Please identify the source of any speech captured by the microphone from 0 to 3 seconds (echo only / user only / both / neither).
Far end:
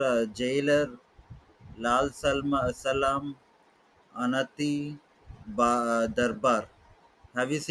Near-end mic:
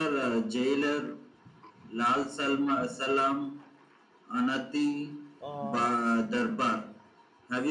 echo only